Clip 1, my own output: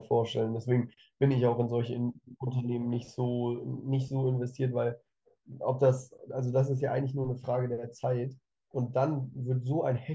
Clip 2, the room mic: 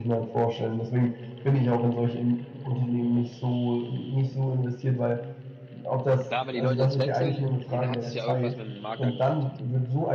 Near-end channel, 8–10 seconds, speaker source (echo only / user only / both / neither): both